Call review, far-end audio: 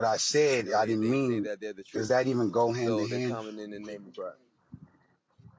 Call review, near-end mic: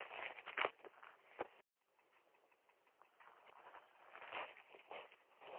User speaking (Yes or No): No